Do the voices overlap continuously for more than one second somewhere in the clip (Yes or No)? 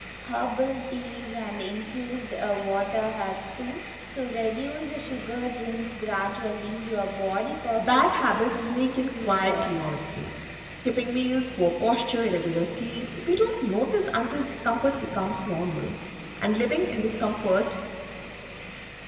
Yes